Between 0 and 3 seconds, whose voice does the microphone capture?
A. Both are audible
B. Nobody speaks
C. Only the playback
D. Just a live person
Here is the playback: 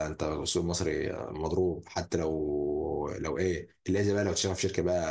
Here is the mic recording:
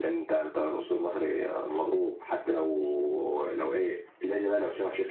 C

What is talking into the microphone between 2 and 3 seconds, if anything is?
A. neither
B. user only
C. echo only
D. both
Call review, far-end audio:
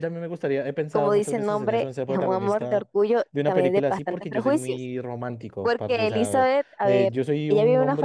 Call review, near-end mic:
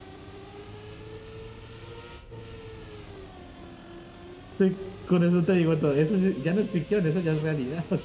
A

